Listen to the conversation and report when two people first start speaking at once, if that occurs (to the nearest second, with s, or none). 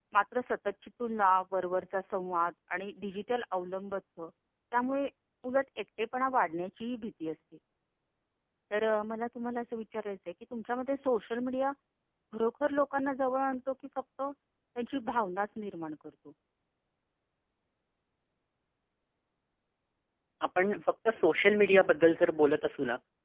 none